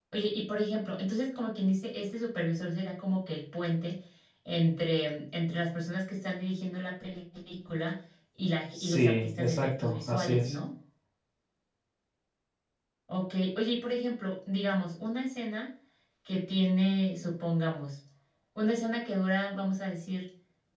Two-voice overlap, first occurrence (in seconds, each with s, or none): 8.7 s